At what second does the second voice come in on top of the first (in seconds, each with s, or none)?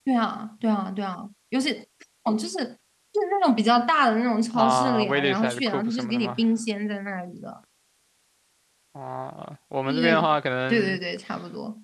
4.5 s